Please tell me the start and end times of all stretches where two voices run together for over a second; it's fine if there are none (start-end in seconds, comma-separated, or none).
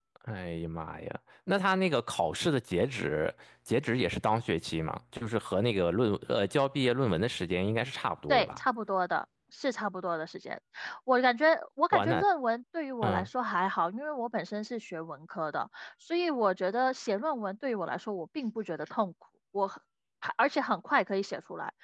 none